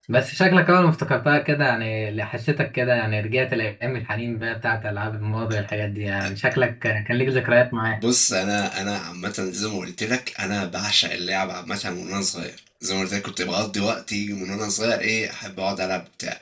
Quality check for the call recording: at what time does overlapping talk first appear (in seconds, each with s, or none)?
none